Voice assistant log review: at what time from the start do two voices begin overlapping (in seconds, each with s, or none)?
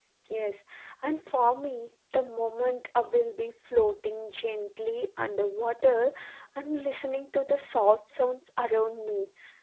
none